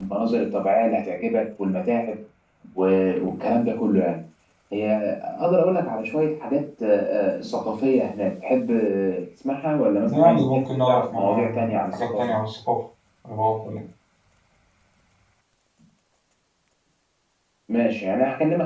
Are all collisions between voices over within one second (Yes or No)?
No